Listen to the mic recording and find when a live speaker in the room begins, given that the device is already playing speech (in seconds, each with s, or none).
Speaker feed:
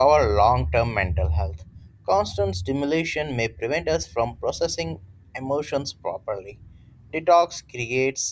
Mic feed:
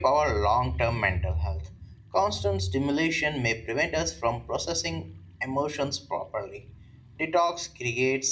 none